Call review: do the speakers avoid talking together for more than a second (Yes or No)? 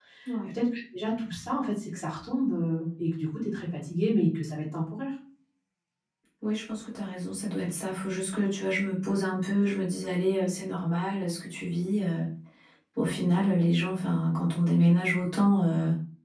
Yes